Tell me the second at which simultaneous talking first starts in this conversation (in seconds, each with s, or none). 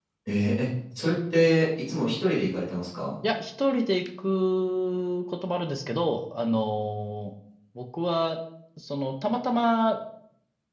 none